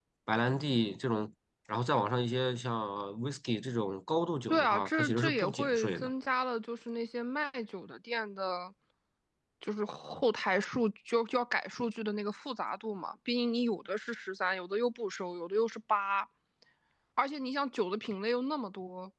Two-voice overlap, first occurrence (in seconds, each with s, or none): 4.5 s